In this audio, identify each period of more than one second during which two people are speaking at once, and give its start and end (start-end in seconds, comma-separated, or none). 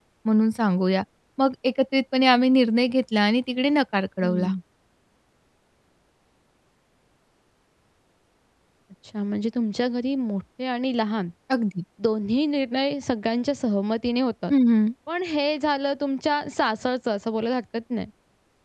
none